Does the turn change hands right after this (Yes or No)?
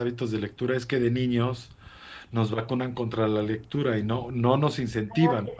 No